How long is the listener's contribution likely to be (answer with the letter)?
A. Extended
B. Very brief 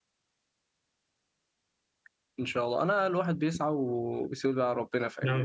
A